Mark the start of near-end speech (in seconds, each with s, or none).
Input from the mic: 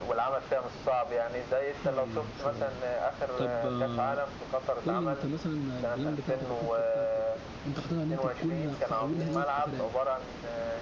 1.8 s